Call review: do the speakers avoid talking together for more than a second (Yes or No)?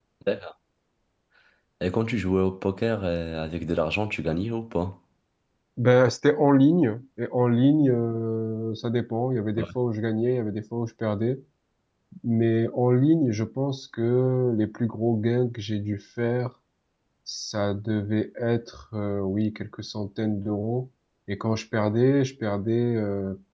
Yes